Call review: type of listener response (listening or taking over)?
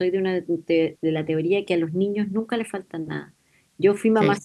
listening